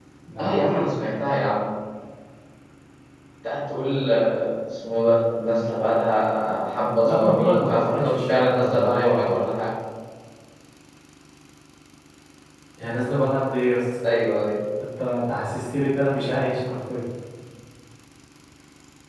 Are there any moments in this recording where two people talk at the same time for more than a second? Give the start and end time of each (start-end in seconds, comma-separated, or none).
7.0-9.4